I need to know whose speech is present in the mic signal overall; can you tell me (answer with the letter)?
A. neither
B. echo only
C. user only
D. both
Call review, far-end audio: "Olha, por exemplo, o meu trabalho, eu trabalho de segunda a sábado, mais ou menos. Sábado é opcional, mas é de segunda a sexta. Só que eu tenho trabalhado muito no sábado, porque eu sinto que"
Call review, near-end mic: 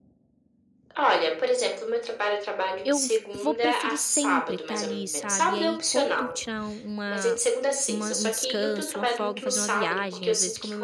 D